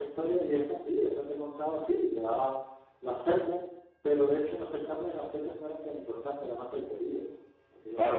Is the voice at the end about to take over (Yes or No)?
Yes